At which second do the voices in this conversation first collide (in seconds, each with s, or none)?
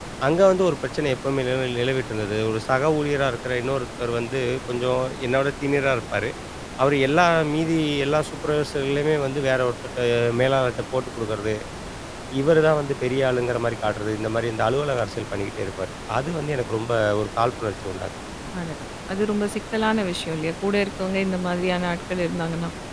none